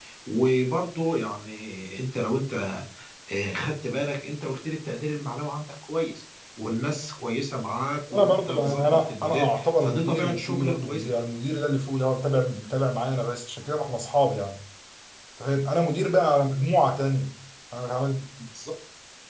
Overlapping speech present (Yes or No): Yes